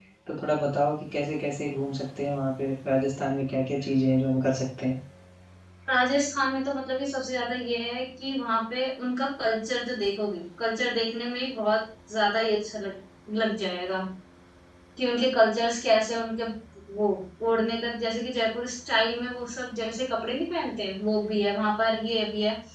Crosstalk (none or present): none